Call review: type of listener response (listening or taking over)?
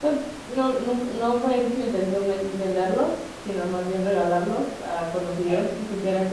listening